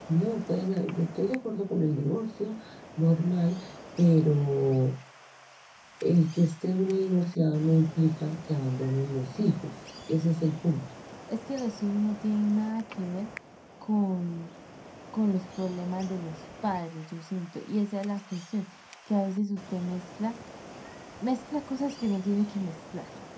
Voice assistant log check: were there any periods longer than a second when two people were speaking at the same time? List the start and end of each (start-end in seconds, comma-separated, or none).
none